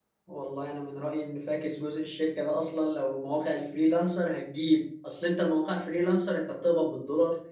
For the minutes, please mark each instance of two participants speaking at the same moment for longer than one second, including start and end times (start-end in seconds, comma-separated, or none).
none